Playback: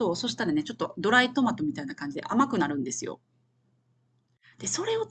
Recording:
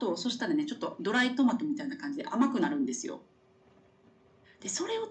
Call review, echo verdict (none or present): present